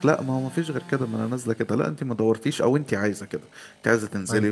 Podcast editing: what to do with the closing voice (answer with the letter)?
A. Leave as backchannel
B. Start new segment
A